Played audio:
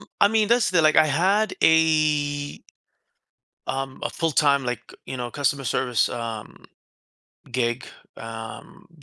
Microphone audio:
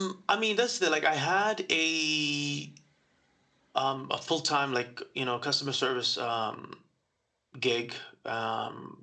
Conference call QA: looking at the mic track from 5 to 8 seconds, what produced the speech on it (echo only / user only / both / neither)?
echo only